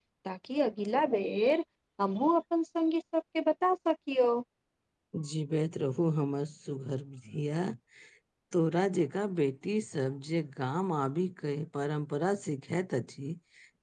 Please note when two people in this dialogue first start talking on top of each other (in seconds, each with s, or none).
none